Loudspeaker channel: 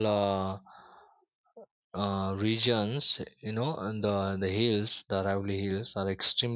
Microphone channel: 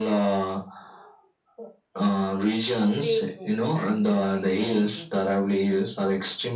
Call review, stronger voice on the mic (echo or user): echo